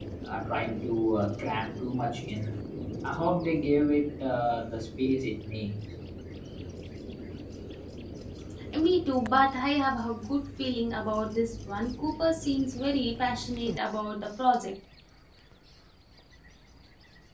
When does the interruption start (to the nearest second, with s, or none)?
none